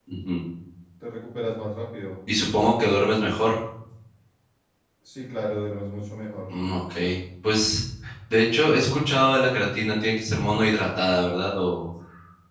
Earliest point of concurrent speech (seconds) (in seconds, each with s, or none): none